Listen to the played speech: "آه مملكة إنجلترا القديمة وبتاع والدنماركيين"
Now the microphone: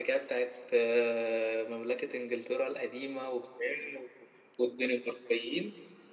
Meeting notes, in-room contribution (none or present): none